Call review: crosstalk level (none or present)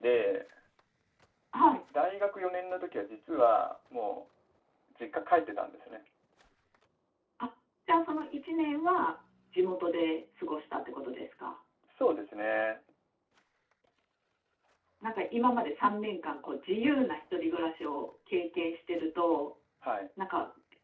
none